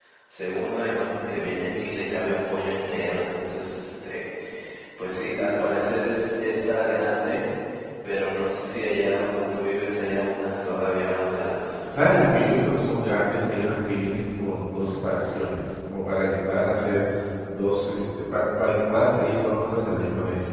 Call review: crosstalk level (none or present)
none